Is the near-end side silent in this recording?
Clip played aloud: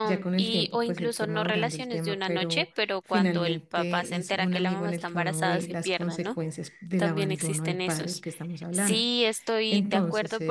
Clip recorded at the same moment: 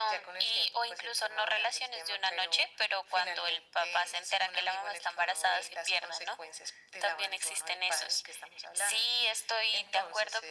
Yes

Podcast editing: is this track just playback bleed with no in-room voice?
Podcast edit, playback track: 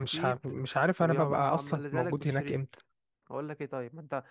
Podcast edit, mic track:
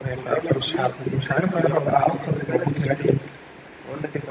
Yes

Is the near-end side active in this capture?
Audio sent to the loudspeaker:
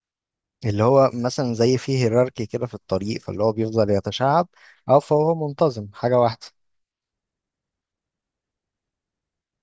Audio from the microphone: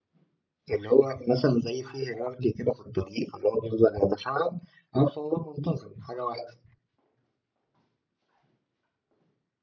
No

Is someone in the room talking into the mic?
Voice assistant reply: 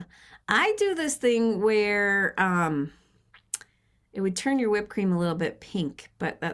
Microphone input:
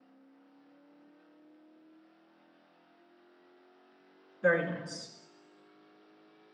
Yes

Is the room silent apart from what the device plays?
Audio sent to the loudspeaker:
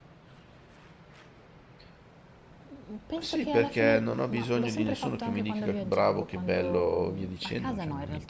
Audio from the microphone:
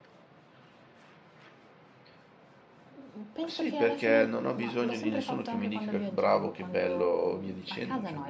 Yes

